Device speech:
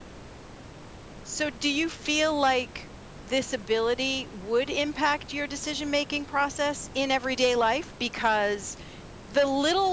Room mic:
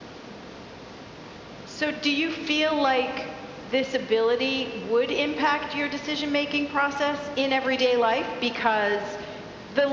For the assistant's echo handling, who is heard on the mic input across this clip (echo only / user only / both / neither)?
echo only